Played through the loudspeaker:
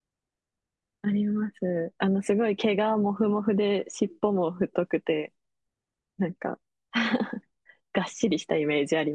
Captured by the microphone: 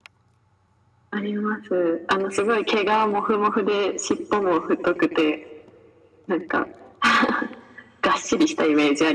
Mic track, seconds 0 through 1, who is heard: neither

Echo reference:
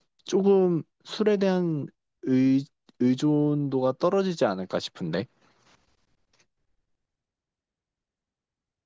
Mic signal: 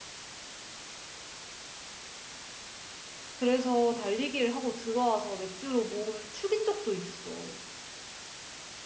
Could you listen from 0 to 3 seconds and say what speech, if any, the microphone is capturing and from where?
neither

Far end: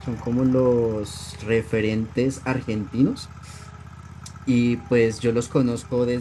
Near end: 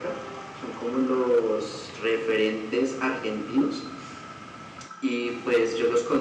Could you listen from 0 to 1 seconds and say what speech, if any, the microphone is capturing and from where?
echo only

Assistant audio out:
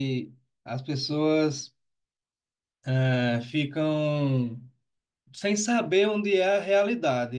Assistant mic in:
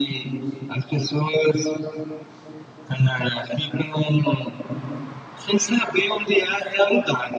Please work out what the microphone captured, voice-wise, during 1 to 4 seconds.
echo only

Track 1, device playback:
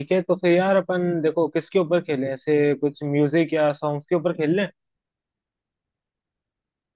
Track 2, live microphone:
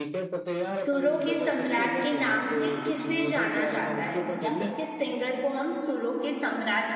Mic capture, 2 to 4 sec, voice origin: both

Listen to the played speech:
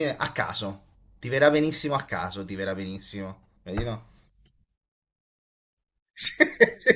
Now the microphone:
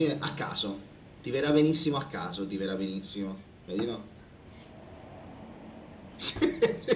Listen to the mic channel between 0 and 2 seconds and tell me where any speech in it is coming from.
echo only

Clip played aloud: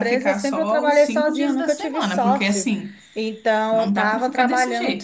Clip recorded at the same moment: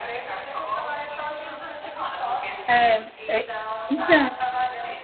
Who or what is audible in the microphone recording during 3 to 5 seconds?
both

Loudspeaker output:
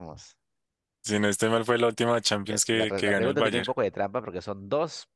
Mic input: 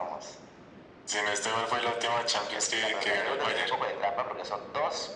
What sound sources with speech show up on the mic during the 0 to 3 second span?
echo only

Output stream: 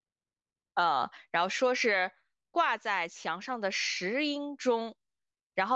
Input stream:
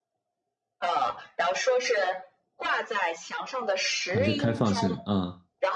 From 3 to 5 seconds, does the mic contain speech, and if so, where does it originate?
both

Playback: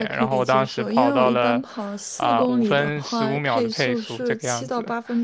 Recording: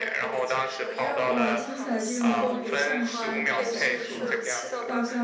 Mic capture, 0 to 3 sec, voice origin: both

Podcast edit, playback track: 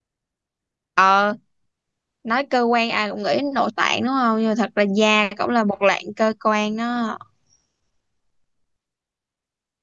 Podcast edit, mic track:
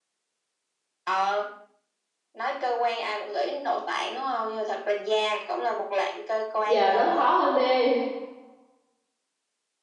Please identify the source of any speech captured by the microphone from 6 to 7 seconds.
both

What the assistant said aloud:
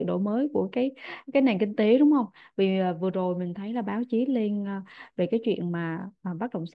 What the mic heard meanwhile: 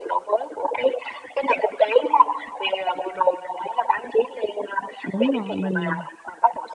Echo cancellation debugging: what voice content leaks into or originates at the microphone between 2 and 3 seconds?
echo only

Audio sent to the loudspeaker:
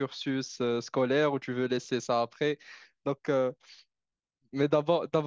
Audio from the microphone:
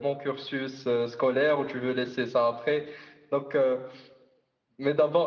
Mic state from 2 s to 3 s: echo only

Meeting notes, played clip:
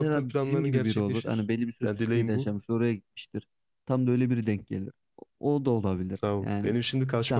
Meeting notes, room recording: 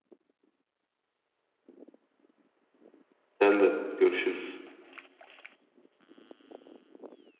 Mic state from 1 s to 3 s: neither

